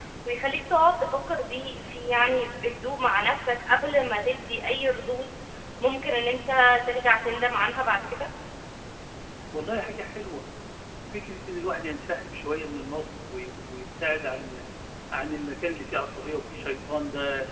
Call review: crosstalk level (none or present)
none